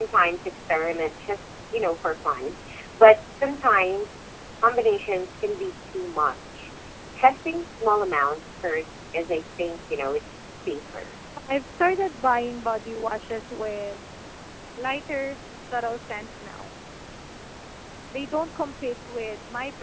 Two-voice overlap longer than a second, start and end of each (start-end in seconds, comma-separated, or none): none